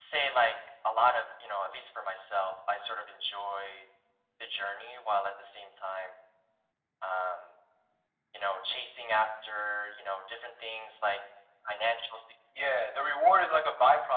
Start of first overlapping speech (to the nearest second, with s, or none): none